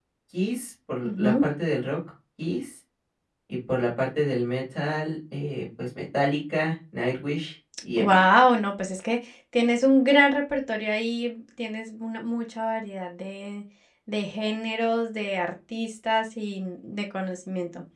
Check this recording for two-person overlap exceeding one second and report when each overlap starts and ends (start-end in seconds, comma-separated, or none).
none